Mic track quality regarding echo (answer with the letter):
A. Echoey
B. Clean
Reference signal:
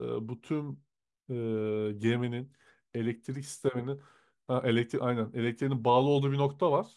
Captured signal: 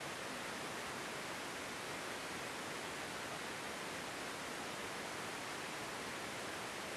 B